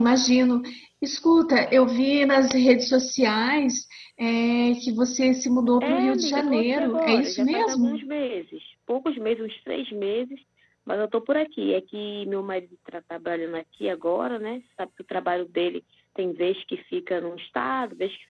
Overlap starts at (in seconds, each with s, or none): 5.8 s